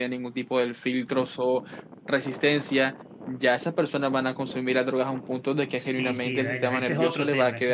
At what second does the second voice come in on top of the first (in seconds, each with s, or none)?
5.7 s